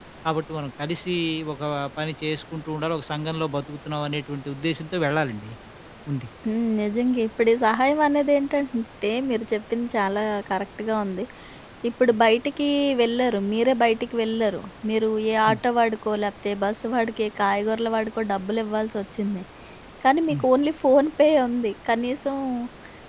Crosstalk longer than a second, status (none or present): none